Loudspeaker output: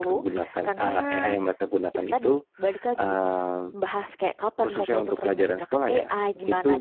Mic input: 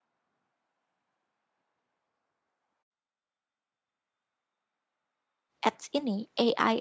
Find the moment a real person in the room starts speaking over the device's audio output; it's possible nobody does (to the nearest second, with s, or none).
6 s